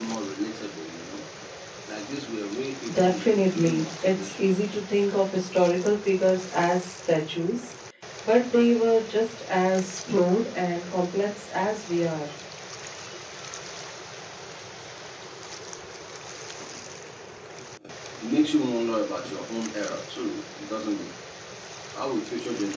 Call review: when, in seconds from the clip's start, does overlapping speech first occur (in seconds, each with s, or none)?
2.9 s